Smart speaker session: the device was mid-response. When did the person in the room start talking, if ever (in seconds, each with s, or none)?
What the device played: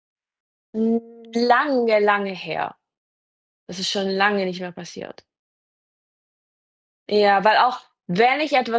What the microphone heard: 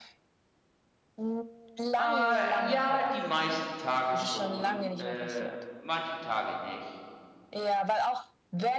2.0 s